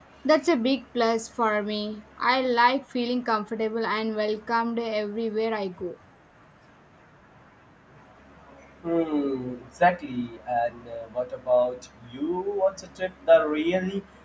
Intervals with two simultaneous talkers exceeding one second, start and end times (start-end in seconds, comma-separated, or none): none